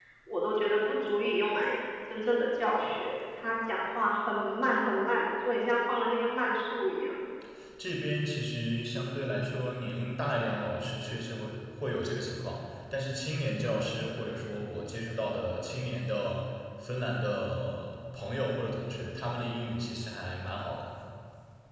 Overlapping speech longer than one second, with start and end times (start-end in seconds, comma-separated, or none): none